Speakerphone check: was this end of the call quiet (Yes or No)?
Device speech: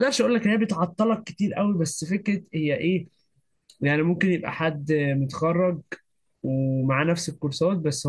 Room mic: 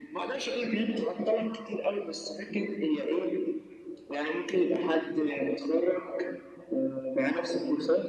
Yes